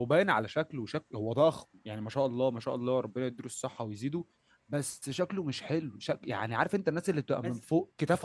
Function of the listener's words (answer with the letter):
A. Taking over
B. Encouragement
B